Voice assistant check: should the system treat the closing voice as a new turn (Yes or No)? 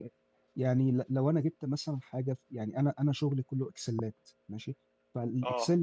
No